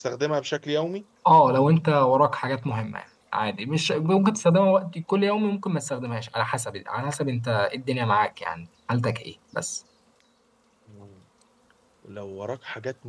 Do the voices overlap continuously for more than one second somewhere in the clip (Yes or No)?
No